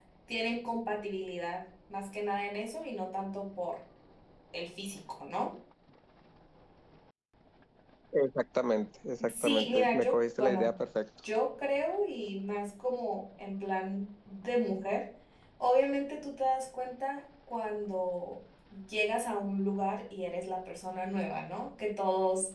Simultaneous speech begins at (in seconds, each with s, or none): 9.2 s